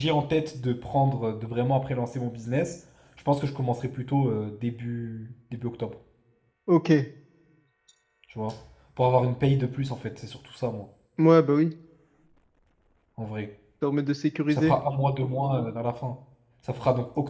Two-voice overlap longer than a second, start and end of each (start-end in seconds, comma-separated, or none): none